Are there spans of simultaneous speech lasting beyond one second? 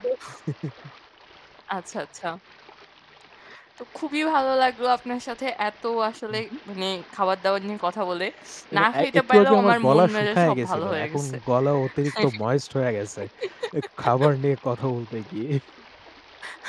Yes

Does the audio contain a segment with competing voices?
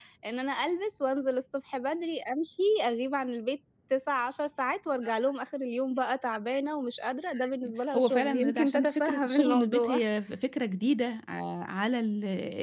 Yes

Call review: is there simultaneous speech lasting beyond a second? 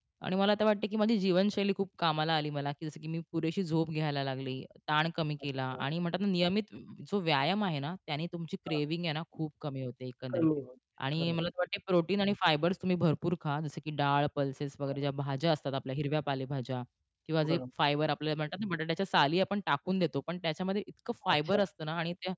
No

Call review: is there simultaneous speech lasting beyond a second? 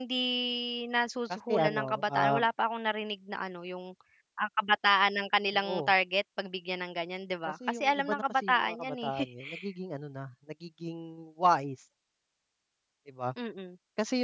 Yes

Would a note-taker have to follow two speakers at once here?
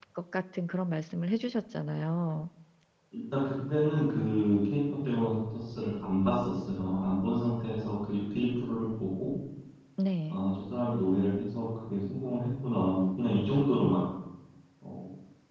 No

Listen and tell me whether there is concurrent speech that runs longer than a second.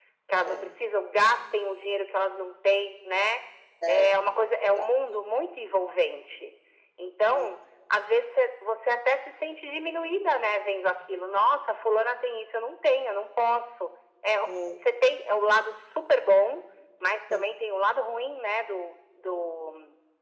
No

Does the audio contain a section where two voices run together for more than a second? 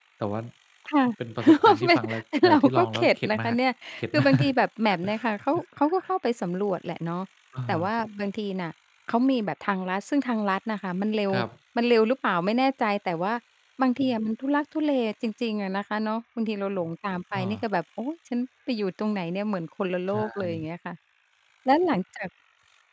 Yes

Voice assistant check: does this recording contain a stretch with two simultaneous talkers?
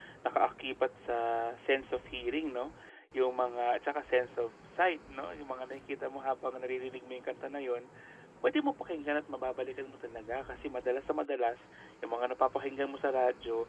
No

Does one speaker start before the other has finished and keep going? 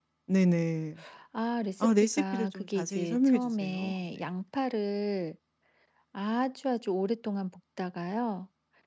Yes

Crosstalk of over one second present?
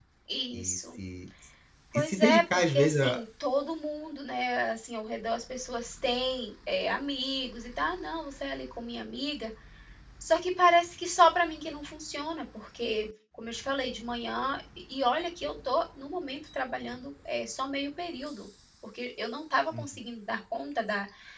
Yes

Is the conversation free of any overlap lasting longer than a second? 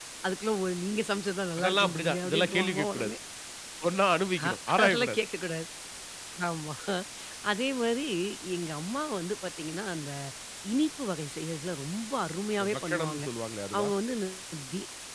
No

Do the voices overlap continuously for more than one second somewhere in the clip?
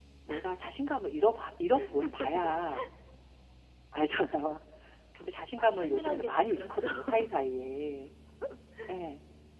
Yes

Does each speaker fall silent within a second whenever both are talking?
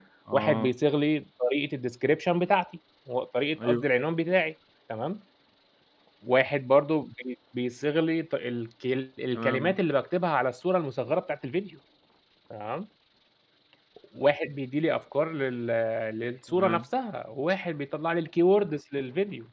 Yes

